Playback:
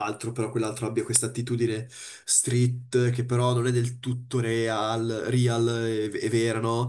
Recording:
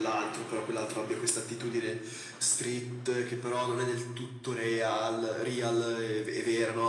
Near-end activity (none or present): none